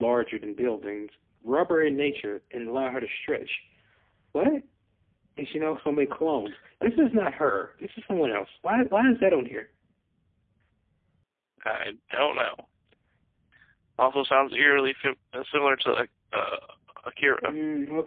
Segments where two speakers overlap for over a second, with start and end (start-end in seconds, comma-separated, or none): none